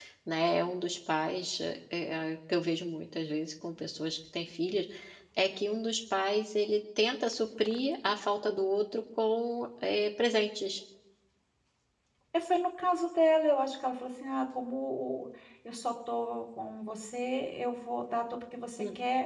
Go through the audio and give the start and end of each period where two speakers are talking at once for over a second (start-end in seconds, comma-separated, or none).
none